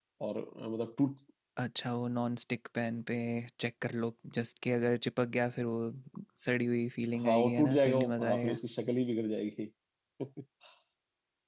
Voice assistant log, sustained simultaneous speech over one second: present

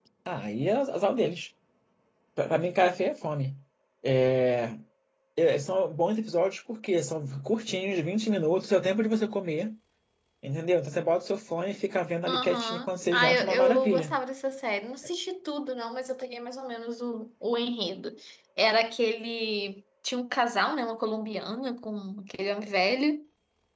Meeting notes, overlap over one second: present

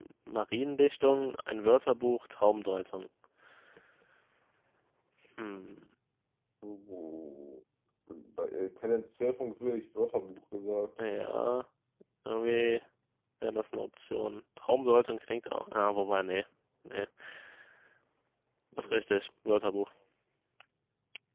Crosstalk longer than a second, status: none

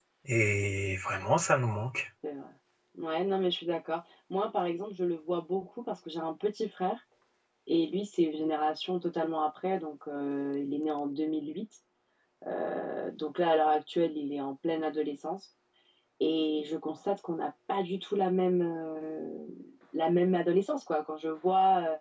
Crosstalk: none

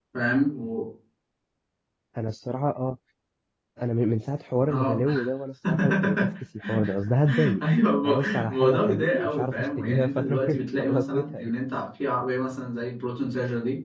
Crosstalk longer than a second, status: present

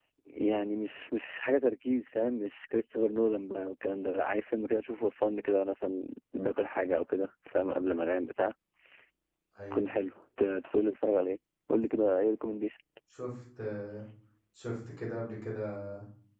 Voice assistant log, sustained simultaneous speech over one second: none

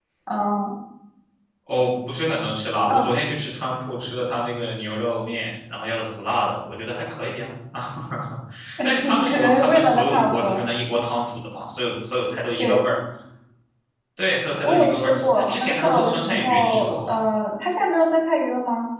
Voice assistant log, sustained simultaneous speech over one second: present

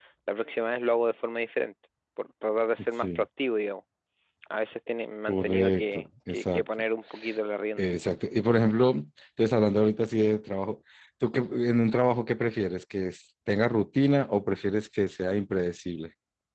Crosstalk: present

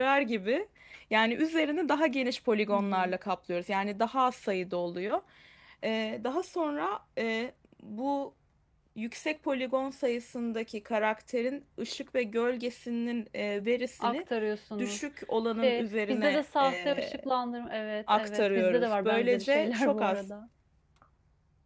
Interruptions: present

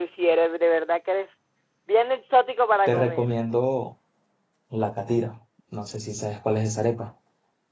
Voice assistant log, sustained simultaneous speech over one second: none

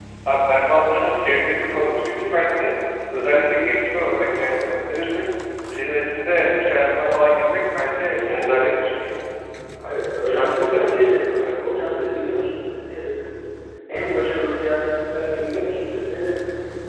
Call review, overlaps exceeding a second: present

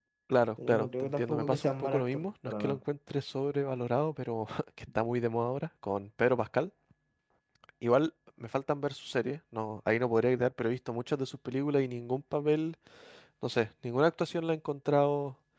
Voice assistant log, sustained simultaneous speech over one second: present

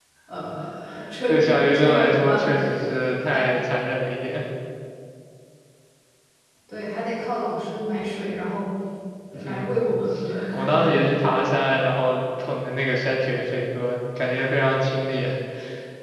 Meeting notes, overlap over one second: present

